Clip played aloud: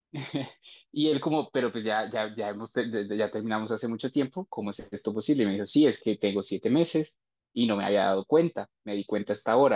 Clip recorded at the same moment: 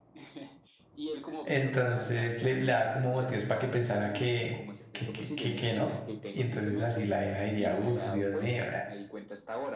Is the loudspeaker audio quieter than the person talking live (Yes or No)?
Yes